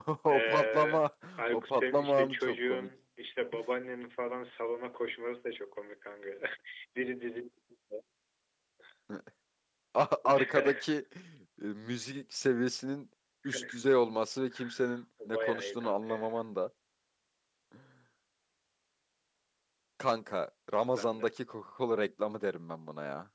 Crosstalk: present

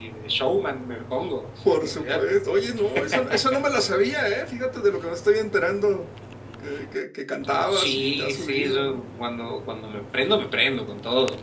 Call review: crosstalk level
present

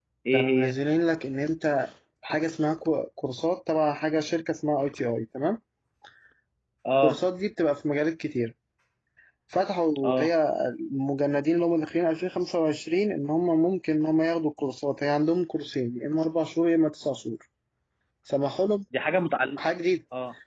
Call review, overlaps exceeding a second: none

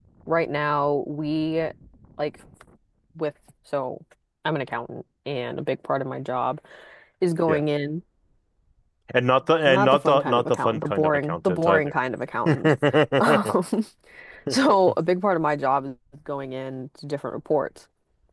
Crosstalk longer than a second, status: present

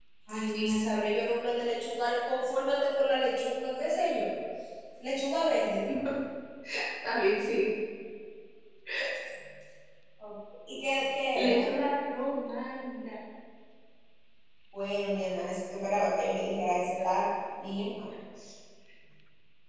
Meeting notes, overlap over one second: none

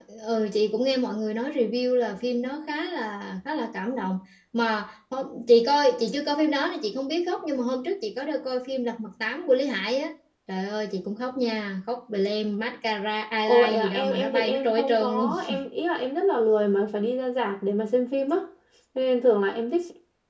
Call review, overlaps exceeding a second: present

